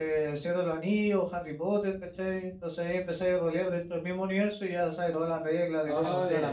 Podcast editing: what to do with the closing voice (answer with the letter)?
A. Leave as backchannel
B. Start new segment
B